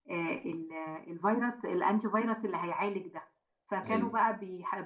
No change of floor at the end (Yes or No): Yes